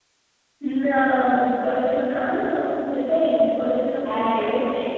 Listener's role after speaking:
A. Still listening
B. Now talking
B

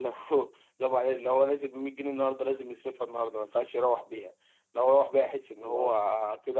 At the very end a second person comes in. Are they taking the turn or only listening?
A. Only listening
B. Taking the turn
A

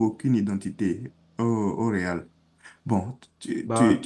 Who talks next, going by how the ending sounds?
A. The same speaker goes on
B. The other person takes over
A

